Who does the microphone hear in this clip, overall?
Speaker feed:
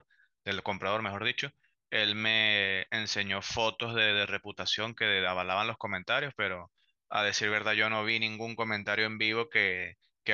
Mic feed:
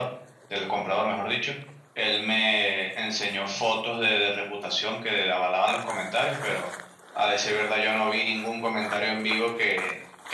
echo only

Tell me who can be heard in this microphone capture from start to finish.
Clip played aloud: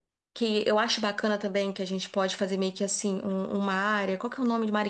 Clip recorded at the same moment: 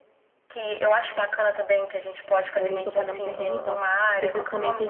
both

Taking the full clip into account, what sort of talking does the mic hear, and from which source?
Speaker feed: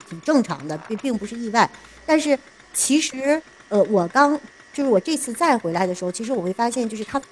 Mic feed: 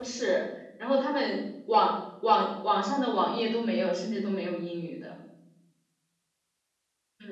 user only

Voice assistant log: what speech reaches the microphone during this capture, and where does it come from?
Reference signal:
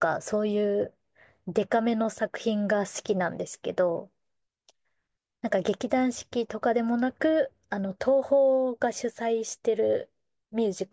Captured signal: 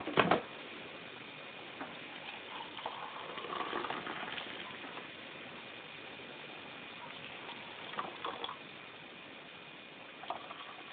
neither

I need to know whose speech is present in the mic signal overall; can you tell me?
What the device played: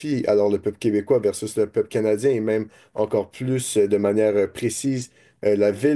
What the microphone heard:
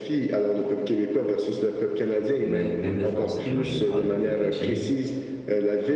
both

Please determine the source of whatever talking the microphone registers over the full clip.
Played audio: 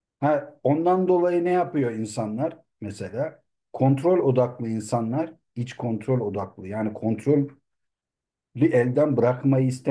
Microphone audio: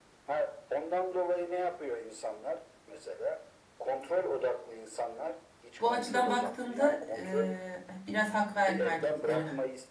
both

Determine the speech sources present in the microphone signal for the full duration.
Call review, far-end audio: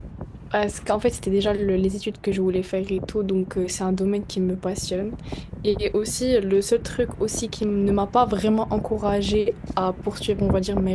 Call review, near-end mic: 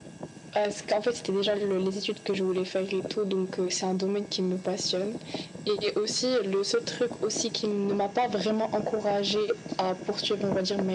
echo only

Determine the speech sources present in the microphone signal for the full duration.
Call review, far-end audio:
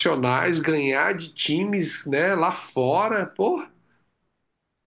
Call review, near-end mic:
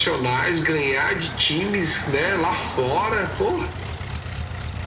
echo only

